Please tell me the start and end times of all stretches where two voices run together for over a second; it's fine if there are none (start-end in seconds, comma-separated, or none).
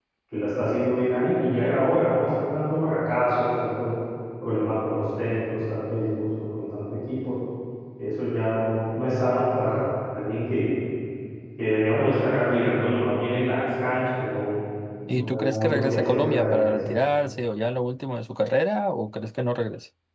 15.1-16.7